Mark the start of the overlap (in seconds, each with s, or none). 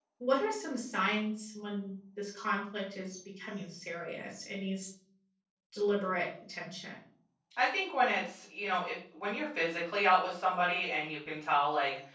none